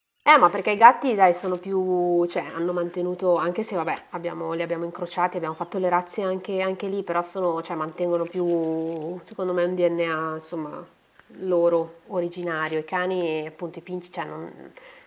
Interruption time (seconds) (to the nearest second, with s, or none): none